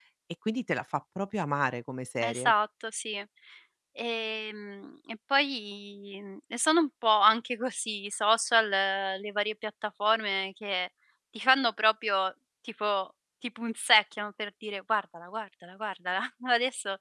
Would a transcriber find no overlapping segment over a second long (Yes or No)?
Yes